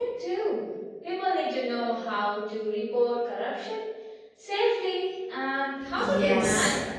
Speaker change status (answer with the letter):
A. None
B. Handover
B